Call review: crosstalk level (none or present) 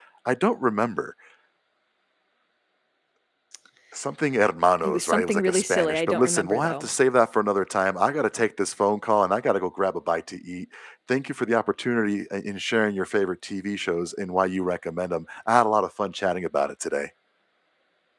present